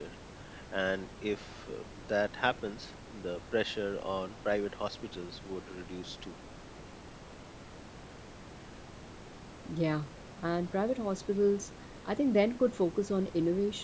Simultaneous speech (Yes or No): No